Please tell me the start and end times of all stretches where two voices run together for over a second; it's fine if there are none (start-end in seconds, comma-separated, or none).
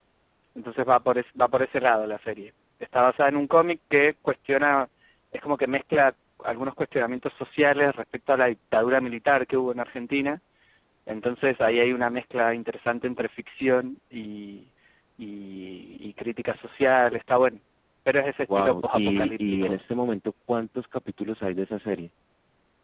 18.5-19.8